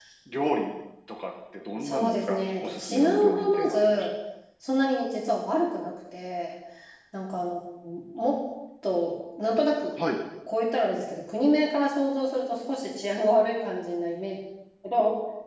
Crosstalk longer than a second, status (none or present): present